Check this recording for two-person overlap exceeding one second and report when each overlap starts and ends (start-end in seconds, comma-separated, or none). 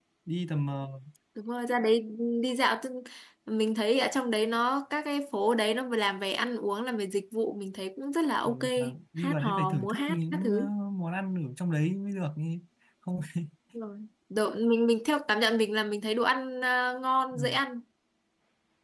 8.4-10.7